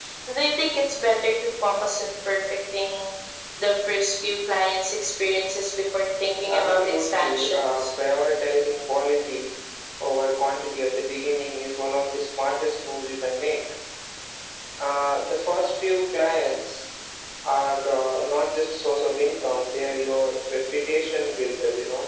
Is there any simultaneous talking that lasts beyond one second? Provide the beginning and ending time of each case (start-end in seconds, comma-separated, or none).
6.5-7.8